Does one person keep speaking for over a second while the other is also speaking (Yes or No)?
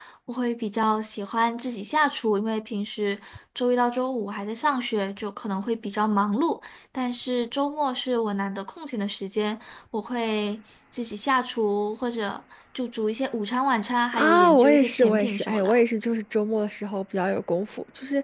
Yes